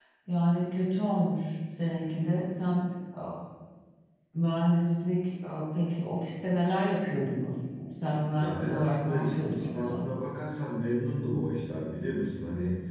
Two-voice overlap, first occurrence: 8.4 s

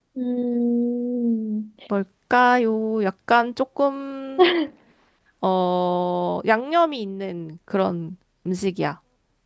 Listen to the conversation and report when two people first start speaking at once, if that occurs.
none

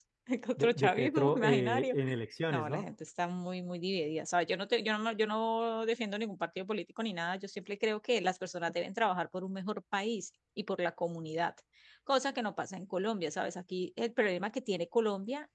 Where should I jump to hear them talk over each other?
0.6 s

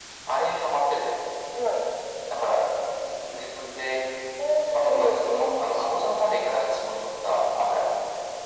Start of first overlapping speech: 4.6 s

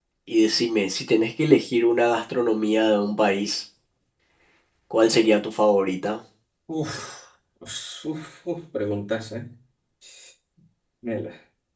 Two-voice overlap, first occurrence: none

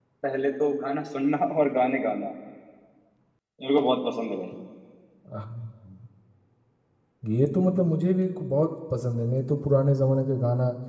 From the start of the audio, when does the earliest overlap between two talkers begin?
none

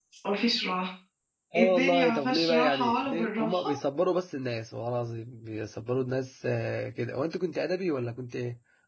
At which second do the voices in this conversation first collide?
1.6 s

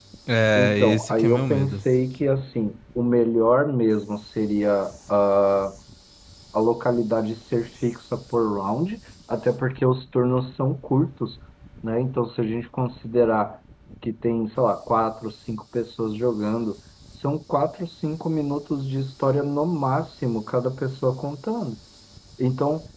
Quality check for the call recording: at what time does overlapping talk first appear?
0.6 s

